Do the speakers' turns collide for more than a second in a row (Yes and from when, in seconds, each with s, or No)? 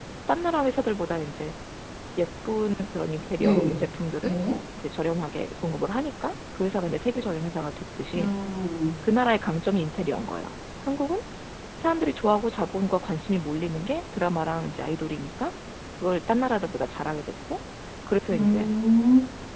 No